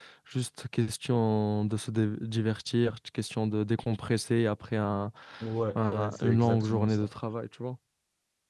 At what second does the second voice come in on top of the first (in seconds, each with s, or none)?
5.8 s